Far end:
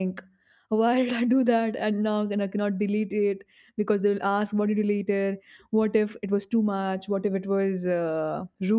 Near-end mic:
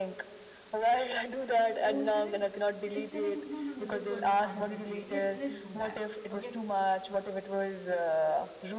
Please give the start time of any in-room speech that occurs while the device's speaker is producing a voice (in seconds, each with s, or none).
1.9 s